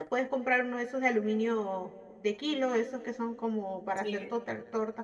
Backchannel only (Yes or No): Yes